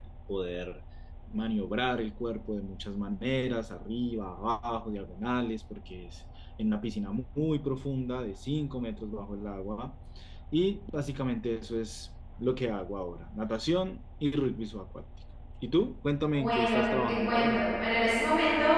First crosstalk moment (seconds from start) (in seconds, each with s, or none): 16.3 s